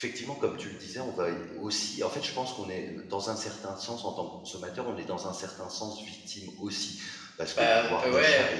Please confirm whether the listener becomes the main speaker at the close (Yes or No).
Yes